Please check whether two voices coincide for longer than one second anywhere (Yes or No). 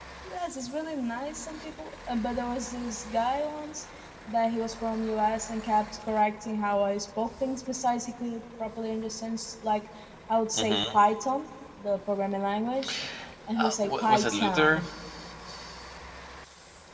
Yes